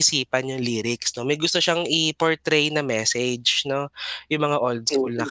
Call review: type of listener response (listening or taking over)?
listening